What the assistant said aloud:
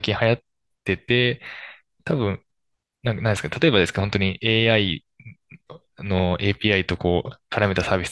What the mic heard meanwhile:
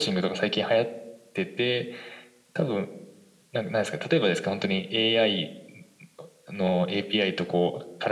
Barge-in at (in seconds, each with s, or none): none